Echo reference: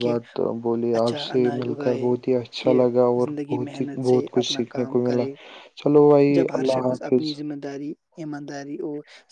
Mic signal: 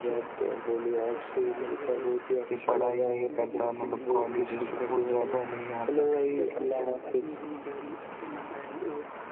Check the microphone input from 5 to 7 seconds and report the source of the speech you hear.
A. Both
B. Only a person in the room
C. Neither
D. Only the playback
A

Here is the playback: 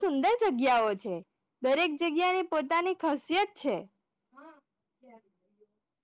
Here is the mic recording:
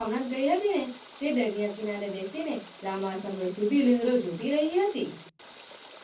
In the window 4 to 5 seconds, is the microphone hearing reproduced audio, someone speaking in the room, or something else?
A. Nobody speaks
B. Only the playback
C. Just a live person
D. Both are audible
C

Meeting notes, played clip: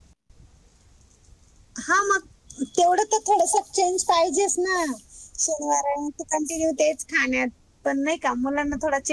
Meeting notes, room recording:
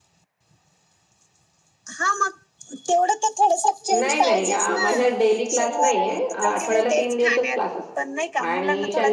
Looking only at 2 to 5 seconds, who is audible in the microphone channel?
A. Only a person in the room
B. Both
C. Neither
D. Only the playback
B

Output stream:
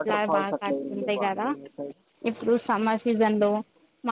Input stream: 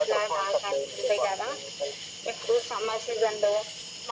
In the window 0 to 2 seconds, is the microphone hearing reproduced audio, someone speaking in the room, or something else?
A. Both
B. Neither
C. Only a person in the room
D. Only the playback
D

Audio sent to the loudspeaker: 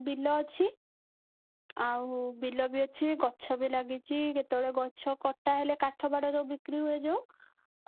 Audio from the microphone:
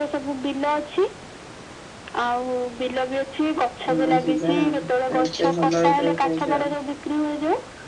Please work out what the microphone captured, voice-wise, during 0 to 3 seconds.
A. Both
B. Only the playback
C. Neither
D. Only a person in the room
B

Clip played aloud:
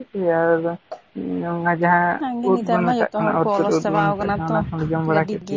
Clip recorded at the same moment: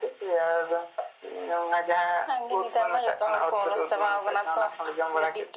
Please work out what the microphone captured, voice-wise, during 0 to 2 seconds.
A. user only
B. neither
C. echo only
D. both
C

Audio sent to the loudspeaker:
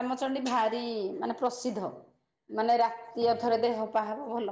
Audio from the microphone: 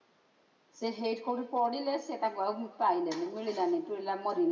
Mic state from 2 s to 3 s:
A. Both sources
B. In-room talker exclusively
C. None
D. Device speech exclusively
B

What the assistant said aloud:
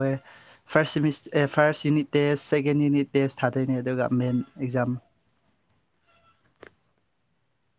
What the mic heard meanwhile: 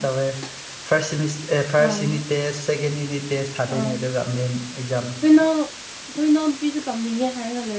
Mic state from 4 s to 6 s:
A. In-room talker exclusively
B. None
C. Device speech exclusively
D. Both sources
D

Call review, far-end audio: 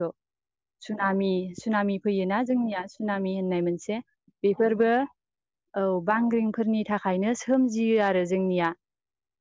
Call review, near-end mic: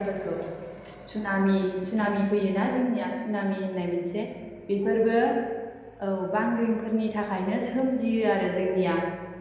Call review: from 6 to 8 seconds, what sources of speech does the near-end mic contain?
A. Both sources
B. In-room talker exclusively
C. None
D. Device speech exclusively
D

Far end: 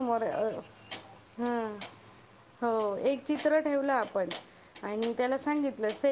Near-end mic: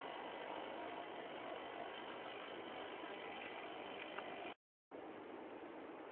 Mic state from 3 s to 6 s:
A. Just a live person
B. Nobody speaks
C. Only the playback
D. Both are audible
B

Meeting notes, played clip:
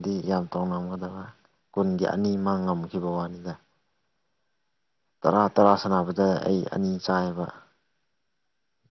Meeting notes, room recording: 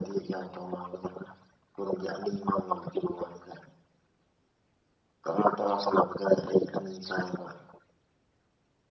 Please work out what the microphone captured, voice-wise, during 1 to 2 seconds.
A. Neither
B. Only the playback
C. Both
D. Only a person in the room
B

